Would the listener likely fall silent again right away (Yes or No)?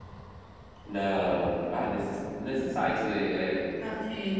No